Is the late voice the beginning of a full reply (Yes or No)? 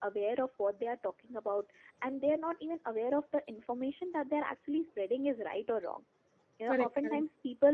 No